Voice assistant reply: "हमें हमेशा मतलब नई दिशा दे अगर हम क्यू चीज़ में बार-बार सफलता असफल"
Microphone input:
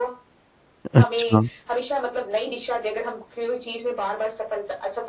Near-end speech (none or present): present